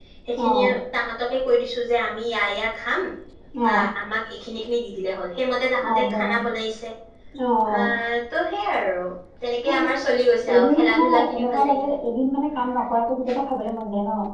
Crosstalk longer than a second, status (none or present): present